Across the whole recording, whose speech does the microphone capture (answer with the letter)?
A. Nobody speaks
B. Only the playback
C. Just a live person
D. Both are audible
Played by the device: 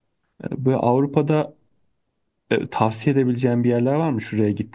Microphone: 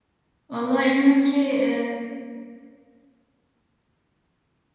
C